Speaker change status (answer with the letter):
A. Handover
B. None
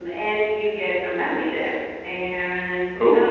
B